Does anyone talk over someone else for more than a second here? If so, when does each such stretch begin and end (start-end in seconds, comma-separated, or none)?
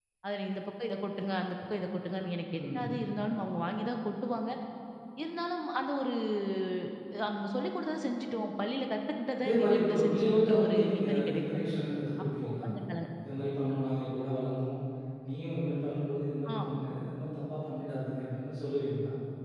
9.4-11.7